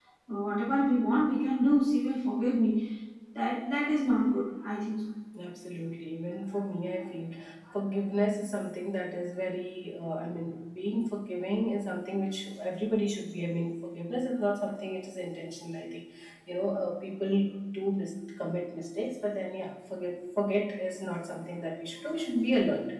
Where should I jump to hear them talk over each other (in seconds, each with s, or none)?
none